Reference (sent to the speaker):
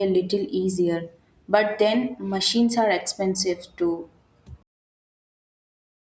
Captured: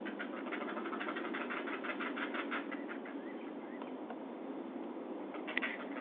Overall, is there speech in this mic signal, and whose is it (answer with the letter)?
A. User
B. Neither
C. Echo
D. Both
B